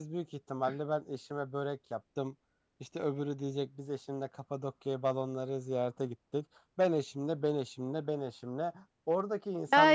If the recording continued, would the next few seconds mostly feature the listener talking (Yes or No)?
Yes